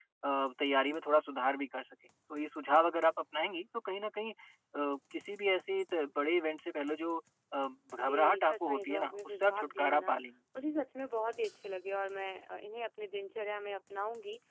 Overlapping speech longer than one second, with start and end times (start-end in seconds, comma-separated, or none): 8.0-10.1